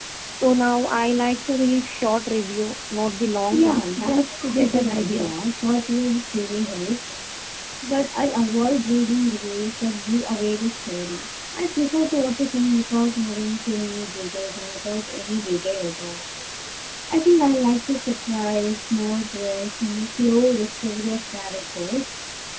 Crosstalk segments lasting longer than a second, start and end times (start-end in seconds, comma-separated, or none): 3.5-5.3